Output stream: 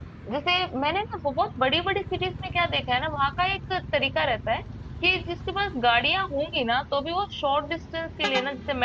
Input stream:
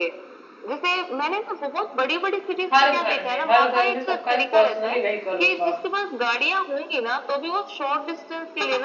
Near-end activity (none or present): present